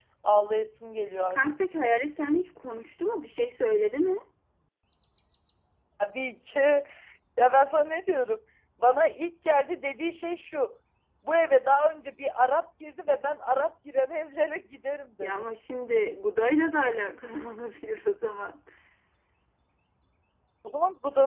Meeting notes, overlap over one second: none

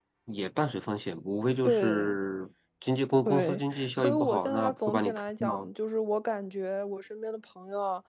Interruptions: present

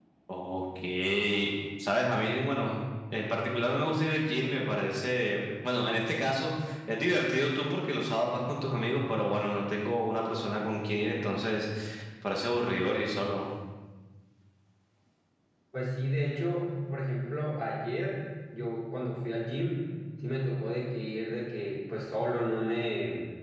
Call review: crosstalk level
none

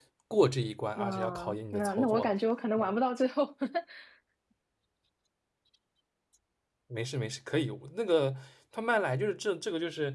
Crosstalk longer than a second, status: present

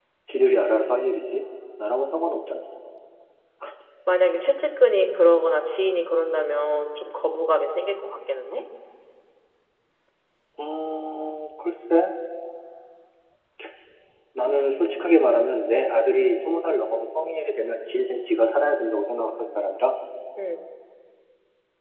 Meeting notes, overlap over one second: none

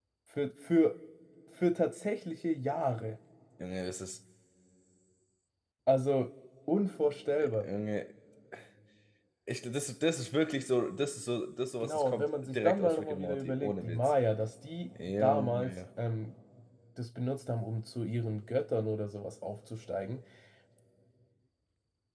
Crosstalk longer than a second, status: present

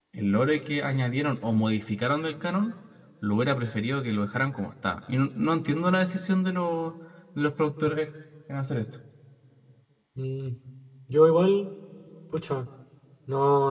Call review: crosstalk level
none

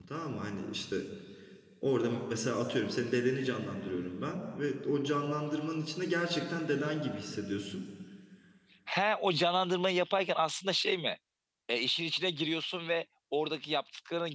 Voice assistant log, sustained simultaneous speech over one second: none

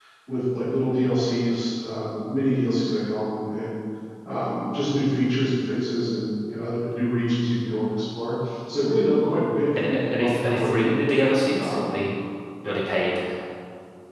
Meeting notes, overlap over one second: present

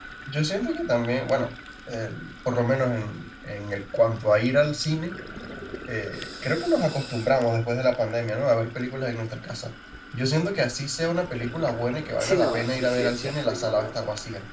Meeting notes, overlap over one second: present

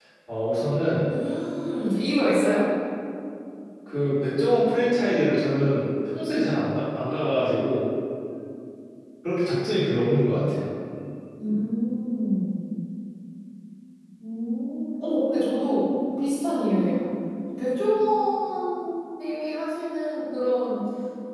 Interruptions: none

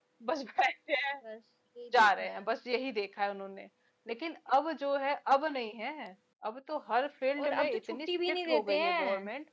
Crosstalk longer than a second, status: present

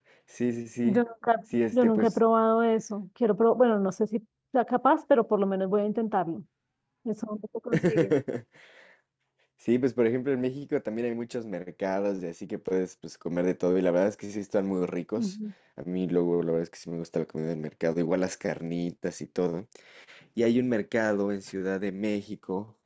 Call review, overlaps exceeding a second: none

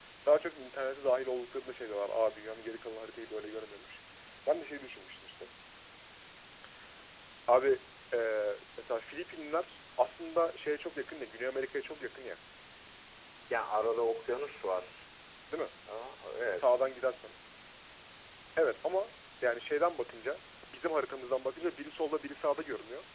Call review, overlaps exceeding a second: none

